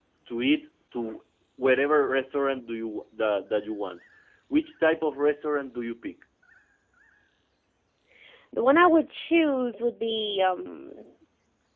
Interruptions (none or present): none